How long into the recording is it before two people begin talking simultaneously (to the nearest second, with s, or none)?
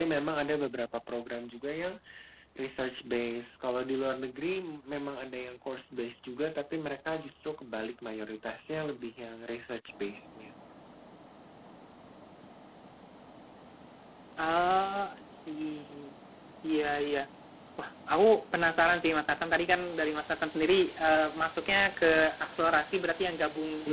none